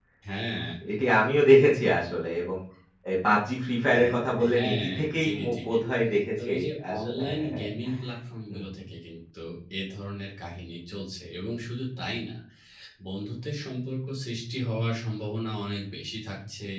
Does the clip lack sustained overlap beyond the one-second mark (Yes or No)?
No